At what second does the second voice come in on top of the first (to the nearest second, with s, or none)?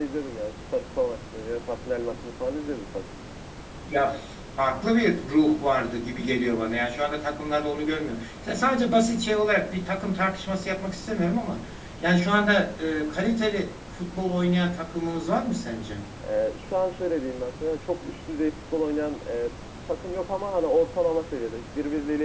none